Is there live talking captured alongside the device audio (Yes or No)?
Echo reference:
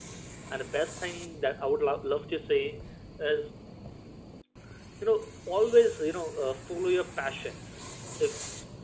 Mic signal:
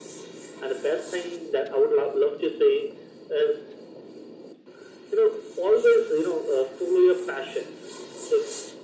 No